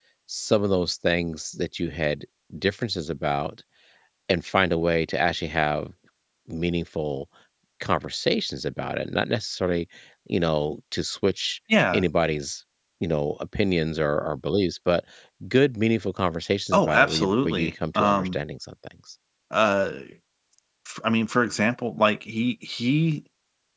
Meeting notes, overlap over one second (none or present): present